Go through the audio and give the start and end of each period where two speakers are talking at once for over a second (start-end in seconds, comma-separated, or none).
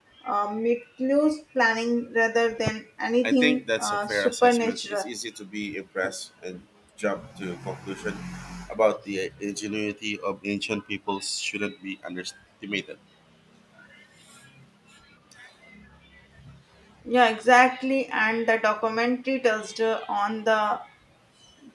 3.2-5.0